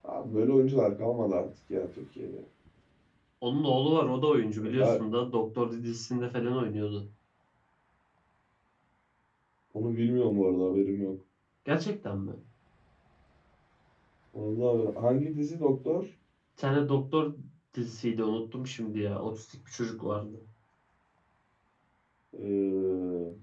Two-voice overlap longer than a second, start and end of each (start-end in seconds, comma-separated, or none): none